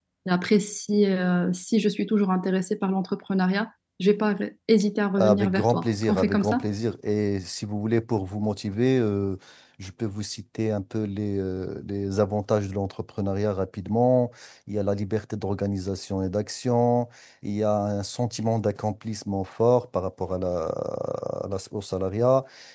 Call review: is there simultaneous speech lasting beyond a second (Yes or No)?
Yes